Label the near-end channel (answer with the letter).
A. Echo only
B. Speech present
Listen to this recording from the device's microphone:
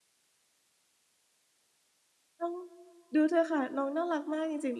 B